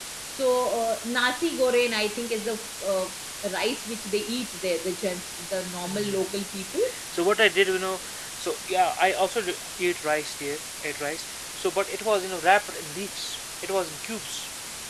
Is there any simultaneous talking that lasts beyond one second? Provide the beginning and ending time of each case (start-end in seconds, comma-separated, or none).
none